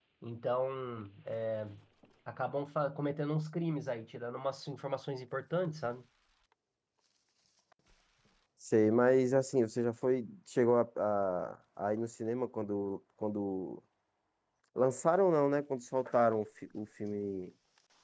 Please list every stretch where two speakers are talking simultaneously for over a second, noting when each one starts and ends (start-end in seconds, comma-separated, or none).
none